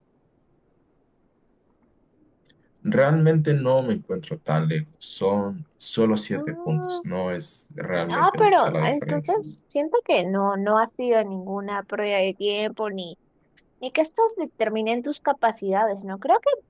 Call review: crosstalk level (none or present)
present